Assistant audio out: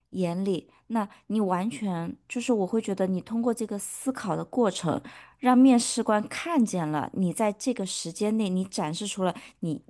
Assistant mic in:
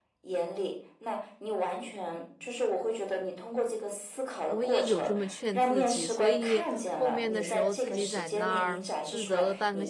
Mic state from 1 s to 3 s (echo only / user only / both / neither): echo only